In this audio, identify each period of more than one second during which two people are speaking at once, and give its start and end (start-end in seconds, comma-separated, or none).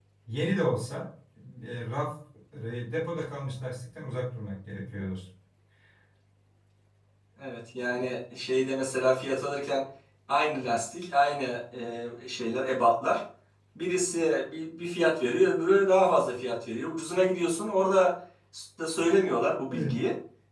none